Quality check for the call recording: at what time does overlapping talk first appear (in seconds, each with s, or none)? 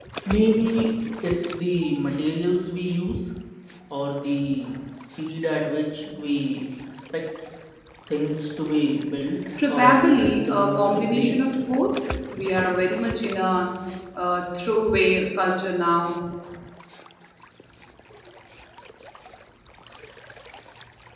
9.6 s